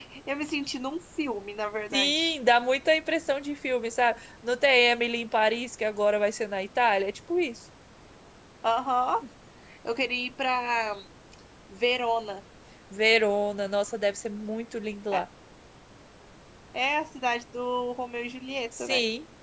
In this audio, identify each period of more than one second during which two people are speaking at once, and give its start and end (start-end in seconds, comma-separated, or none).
none